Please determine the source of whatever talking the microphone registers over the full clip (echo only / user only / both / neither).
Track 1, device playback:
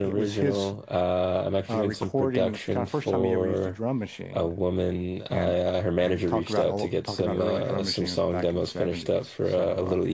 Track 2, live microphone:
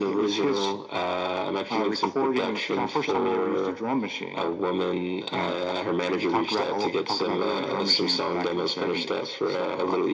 echo only